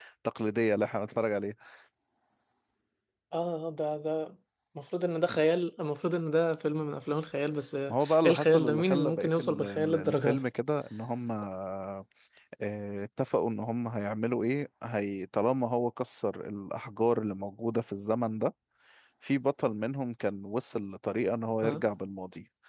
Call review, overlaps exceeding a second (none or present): present